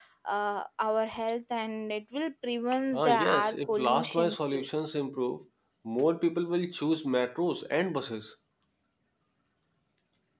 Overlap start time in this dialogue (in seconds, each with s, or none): 2.9 s